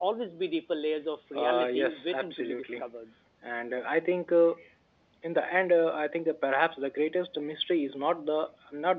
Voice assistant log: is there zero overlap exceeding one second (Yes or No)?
No